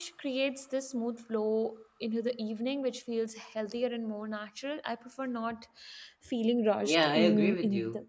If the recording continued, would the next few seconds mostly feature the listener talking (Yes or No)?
Yes